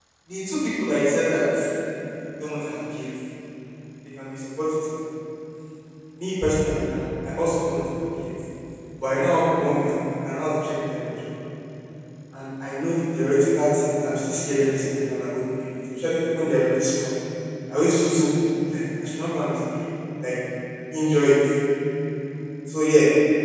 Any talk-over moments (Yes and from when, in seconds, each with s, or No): No